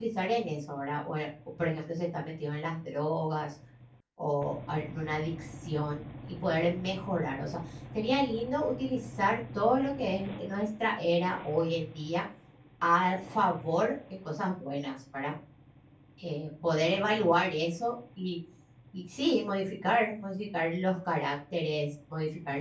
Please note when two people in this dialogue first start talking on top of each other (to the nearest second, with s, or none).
none